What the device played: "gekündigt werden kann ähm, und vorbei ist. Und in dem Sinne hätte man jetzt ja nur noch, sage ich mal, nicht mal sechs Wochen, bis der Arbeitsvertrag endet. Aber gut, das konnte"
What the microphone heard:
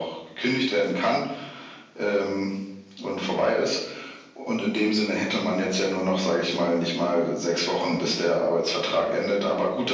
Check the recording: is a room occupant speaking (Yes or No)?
No